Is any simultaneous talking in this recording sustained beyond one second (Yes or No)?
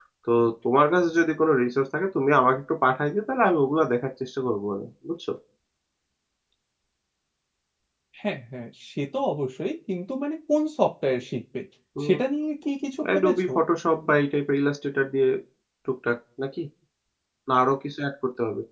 No